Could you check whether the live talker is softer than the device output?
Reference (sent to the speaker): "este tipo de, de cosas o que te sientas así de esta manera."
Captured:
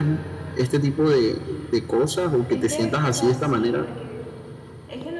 Yes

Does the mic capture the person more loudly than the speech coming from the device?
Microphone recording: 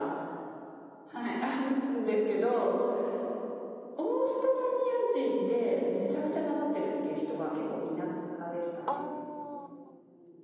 No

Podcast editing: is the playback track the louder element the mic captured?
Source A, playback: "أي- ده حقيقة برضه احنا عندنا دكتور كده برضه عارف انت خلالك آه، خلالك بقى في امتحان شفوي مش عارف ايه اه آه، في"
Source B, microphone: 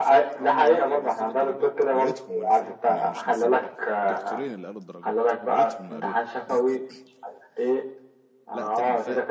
Yes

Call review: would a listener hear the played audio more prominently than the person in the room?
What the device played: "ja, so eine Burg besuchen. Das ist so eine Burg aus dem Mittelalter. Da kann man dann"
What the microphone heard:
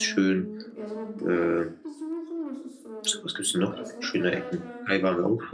No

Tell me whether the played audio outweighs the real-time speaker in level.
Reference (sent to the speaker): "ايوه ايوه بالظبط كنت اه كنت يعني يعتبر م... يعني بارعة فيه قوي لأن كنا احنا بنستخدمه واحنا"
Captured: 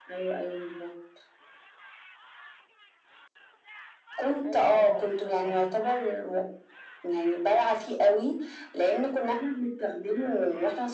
Yes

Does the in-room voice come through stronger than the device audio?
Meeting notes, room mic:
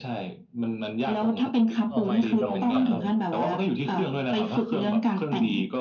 No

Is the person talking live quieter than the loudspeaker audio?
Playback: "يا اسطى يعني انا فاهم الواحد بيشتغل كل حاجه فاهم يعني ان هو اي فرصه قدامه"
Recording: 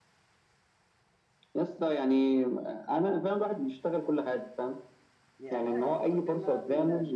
Yes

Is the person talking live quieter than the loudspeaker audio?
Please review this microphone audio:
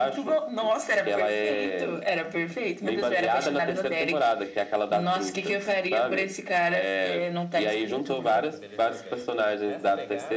Yes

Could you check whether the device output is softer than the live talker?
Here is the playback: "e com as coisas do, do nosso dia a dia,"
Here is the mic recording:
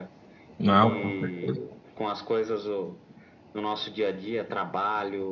Yes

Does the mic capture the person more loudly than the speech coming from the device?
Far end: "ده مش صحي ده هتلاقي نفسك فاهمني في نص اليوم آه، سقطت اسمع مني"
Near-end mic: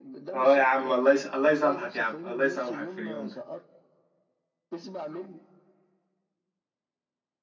Yes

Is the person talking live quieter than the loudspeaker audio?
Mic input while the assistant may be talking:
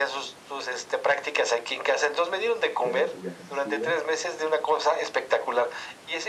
Yes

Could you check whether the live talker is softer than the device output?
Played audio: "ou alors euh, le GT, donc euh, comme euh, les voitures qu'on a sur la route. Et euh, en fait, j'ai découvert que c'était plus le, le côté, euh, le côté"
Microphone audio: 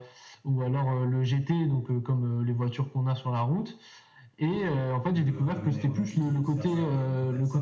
Yes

